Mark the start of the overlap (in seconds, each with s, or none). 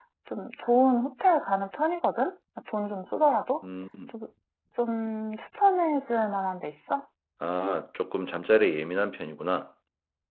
none